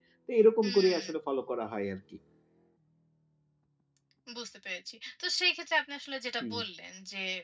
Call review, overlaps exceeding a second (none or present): none